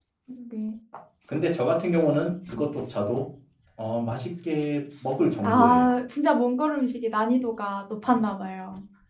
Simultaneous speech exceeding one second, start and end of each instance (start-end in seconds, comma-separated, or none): none